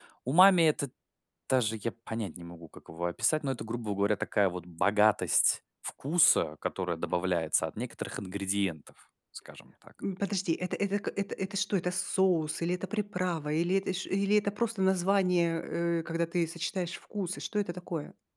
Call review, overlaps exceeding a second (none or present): none